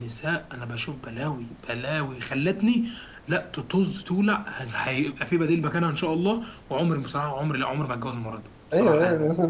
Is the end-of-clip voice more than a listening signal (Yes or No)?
Yes